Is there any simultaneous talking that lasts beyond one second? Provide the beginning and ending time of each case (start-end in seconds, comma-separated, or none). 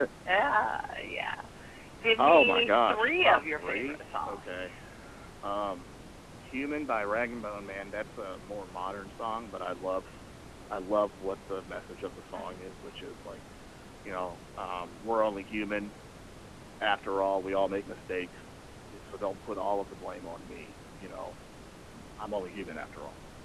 2.2-4.8